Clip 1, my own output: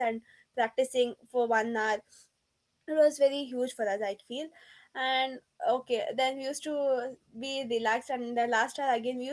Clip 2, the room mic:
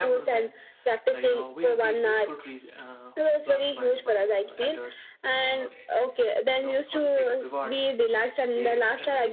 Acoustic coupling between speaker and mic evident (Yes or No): Yes